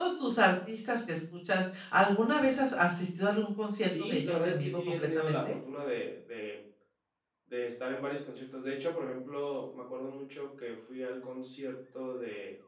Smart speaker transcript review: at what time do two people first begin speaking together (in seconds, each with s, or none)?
3.9 s